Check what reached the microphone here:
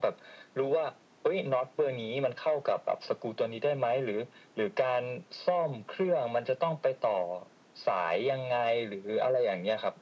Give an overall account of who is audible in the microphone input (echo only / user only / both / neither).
echo only